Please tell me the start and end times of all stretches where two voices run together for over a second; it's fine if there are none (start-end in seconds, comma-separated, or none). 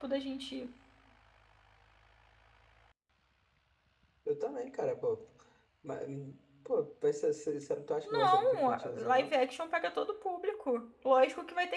8.0-9.3